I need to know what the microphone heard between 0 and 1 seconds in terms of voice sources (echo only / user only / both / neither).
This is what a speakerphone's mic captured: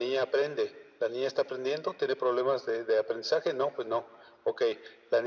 echo only